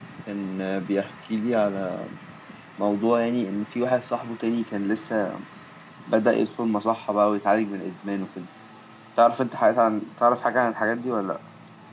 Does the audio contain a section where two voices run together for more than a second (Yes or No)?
No